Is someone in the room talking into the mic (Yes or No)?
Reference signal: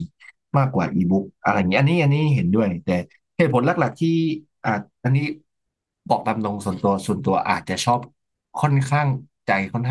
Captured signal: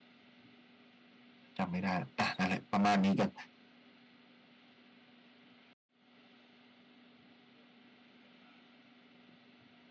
Yes